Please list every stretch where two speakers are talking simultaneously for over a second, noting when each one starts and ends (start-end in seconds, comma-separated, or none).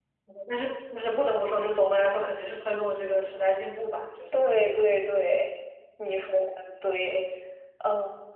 none